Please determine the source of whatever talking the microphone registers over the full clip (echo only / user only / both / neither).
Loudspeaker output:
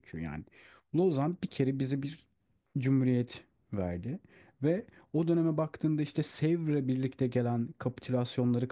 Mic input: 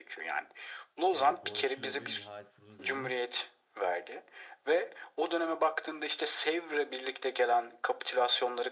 both